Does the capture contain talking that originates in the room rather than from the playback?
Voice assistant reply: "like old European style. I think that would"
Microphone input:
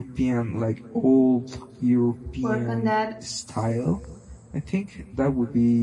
Yes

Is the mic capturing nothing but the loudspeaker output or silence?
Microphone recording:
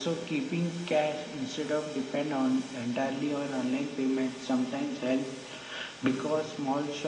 Yes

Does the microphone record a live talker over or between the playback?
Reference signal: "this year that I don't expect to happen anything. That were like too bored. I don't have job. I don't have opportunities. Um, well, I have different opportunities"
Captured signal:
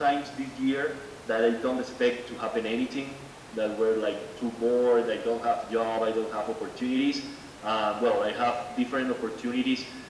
No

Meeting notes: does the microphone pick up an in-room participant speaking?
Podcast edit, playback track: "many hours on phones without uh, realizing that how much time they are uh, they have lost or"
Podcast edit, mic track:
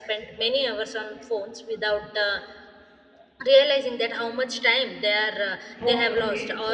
Yes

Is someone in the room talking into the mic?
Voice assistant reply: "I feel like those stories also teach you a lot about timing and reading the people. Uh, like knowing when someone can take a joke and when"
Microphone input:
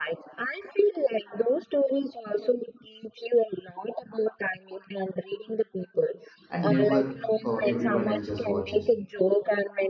Yes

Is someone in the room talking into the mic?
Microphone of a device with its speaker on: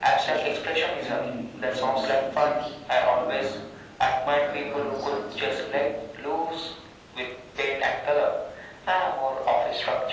Yes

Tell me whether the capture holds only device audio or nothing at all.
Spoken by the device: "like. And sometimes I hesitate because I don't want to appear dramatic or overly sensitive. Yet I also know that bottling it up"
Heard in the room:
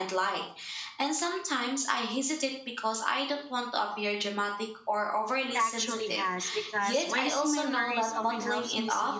No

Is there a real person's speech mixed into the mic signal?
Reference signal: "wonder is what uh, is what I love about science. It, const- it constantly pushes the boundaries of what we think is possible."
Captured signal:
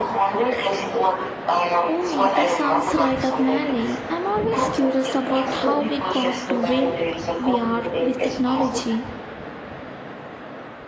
Yes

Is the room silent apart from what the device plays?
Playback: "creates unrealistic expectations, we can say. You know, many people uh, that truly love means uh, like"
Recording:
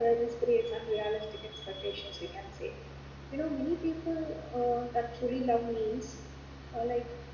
Yes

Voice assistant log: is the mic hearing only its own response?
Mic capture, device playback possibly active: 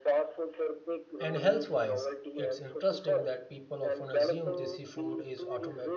No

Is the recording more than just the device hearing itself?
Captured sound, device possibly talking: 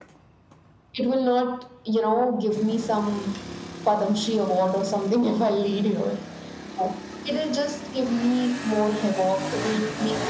No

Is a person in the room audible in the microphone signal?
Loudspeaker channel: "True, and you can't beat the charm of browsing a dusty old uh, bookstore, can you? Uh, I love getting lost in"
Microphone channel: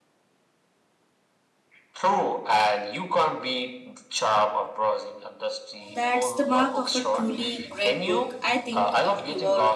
Yes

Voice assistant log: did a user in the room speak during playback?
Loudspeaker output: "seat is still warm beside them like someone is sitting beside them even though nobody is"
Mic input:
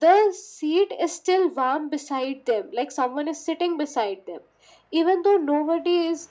No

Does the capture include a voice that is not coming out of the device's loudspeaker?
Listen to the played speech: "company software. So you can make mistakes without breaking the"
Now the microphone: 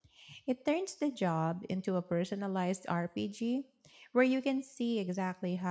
Yes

